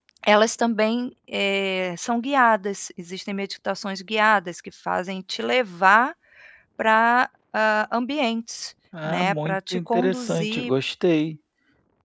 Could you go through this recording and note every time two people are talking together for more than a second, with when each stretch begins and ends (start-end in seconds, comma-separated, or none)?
9.0-10.7